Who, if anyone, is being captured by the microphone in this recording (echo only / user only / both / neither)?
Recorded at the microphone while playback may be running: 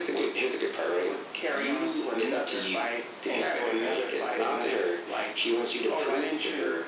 echo only